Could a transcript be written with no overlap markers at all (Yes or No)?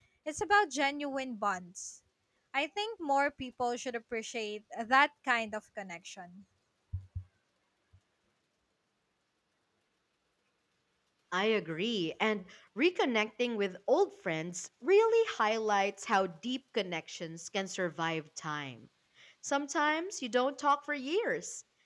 Yes